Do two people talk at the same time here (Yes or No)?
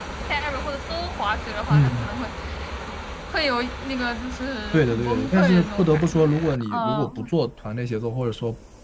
Yes